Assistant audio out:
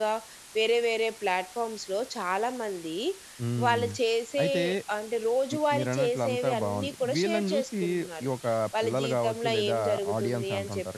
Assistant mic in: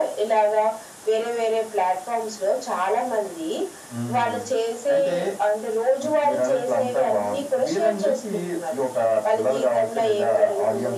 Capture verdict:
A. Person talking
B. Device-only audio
B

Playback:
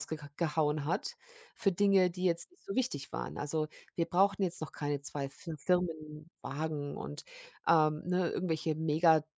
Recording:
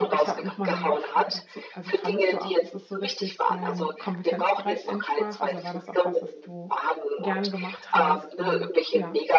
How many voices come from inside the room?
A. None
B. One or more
B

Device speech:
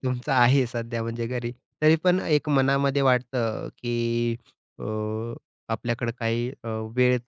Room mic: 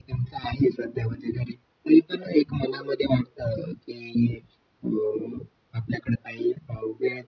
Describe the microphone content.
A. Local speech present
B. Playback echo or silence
B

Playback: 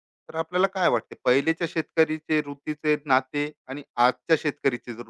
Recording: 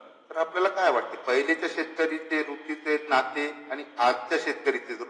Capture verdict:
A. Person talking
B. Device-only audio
B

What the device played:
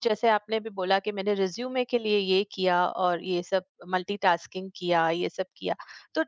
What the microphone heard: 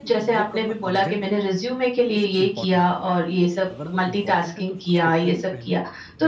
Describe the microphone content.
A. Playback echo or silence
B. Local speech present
B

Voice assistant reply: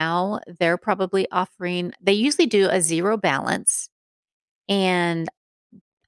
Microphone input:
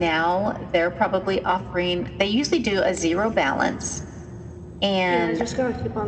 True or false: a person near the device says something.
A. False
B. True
B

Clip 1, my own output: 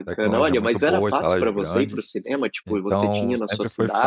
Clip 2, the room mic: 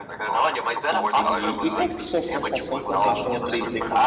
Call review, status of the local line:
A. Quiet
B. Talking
B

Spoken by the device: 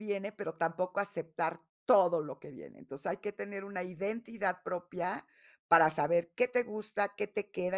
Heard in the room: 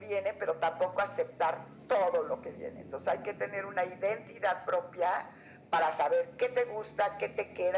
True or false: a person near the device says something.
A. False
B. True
A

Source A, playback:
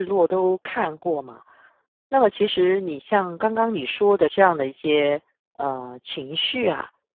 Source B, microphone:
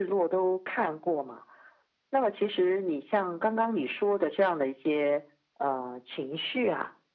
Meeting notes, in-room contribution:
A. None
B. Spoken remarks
A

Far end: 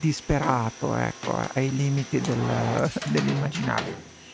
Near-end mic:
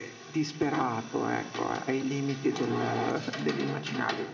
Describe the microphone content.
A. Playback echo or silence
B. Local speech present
A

